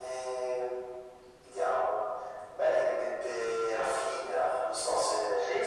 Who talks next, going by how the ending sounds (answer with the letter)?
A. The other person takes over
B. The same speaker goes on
A